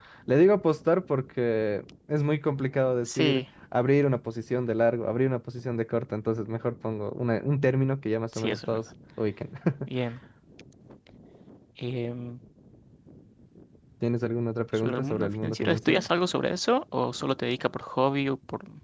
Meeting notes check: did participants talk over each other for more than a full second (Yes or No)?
Yes